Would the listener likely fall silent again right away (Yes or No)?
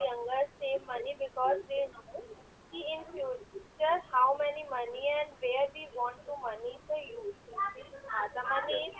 Yes